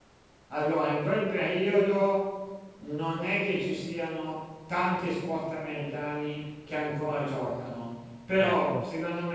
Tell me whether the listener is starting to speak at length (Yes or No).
No